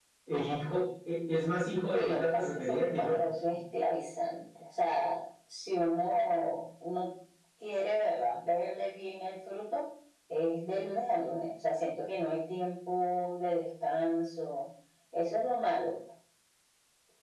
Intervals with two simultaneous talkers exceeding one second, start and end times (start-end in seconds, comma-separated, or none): 1.9-3.2